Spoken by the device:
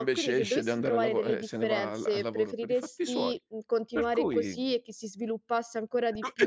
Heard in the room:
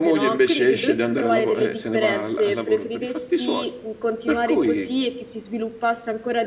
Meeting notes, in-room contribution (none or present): none